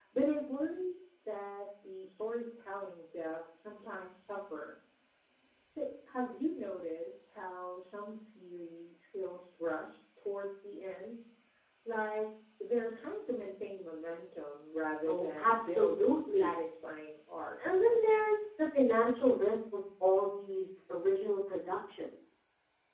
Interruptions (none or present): present